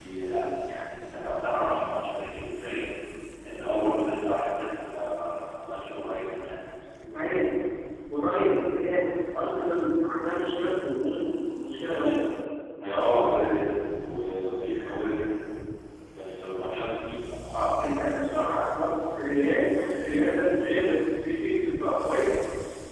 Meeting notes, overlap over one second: none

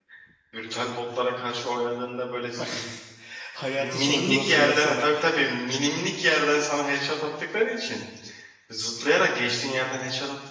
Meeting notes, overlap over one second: present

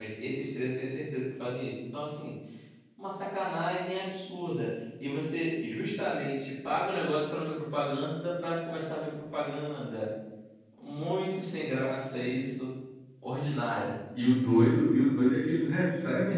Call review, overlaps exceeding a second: none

